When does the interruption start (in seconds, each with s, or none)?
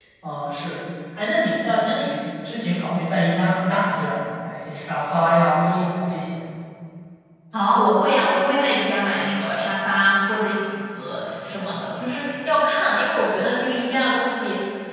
none